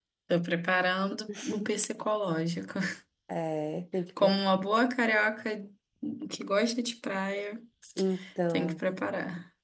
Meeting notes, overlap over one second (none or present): none